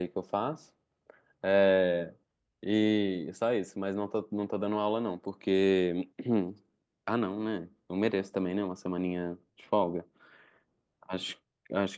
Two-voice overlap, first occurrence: none

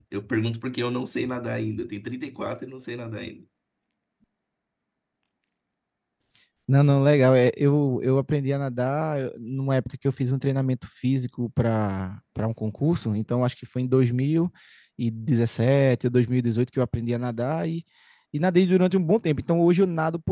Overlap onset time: none

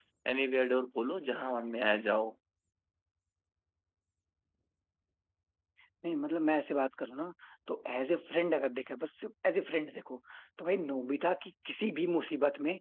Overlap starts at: none

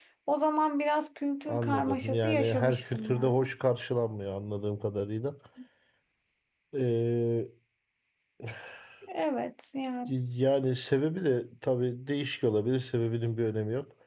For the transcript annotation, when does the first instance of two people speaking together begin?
1.4 s

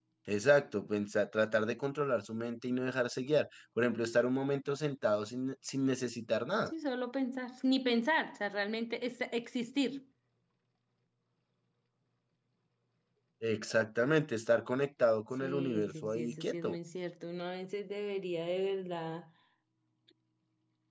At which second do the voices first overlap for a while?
15.4 s

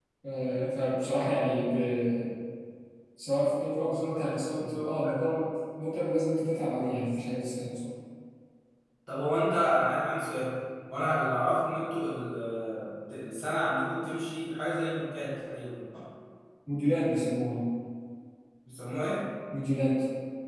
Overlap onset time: 3.8 s

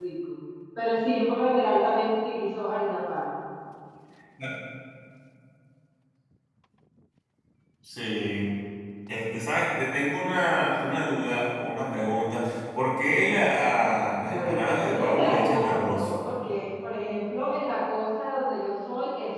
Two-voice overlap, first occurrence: 14.2 s

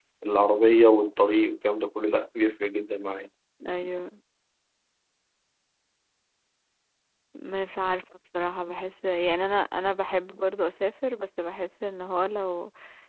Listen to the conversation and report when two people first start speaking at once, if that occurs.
none

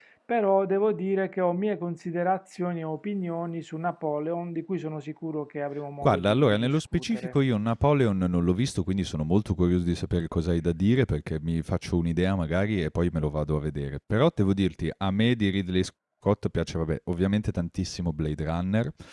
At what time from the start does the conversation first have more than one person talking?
6.0 s

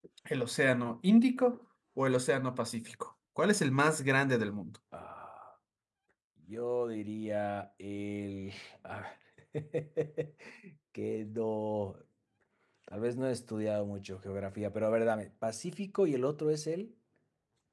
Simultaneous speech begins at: none

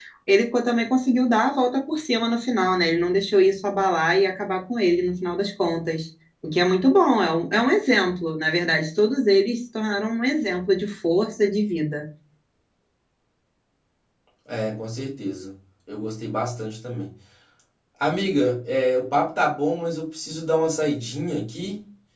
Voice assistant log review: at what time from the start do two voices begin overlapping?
none

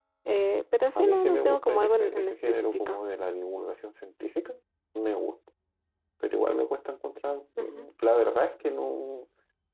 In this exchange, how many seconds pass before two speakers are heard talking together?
1.0 s

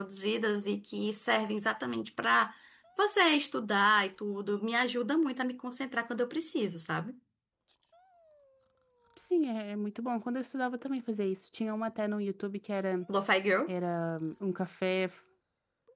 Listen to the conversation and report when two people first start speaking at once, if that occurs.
none

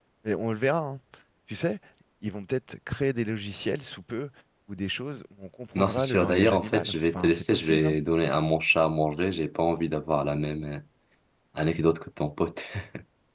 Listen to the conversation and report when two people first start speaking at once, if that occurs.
5.7 s

